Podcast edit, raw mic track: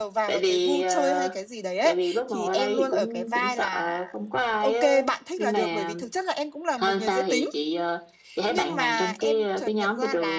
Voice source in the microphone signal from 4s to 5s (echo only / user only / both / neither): both